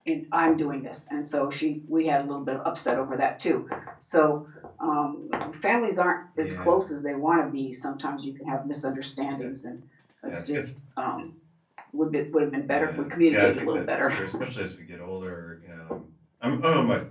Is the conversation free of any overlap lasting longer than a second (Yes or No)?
No